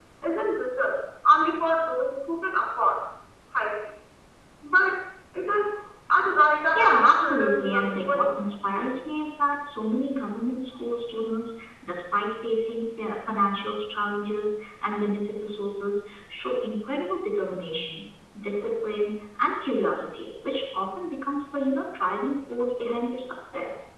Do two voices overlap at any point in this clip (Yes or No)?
Yes